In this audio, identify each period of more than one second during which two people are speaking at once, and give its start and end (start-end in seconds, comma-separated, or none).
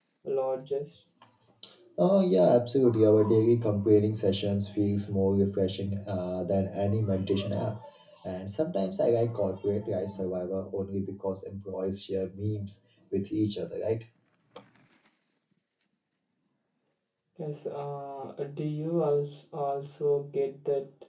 none